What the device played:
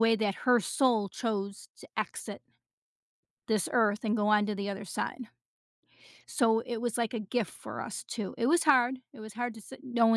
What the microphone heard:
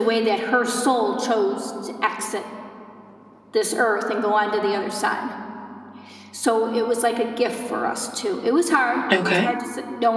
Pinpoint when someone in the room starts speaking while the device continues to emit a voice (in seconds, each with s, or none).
9.1 s